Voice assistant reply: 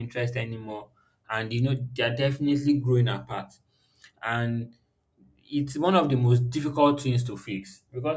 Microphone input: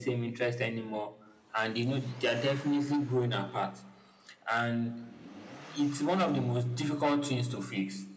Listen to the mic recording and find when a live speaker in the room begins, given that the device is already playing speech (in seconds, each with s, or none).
none